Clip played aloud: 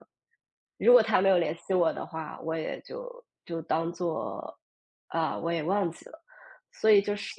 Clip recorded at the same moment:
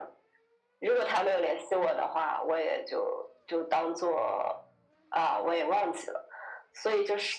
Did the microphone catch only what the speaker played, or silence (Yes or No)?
Yes